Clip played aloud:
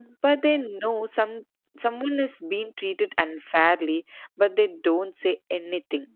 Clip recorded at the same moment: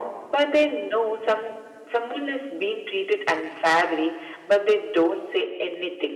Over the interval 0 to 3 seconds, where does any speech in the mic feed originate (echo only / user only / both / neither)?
echo only